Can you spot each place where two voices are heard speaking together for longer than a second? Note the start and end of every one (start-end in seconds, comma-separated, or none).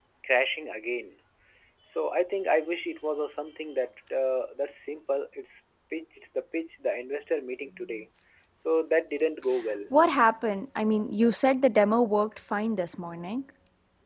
none